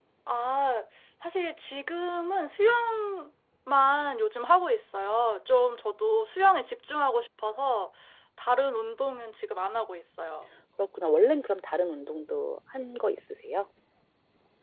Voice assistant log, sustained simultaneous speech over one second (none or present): none